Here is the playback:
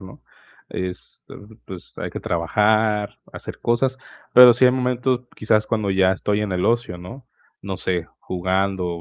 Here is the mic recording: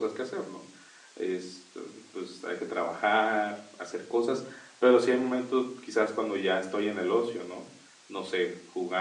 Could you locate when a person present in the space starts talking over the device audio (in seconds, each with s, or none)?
none